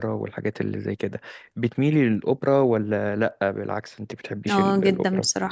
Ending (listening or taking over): taking over